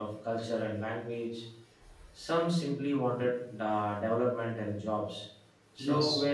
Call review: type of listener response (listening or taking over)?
listening